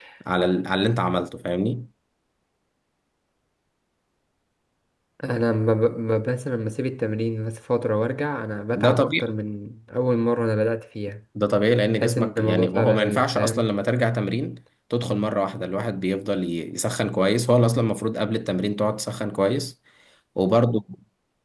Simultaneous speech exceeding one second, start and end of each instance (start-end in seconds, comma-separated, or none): 12.0-13.7